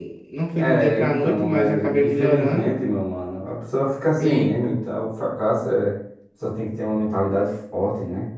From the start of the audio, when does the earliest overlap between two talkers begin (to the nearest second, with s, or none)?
1 s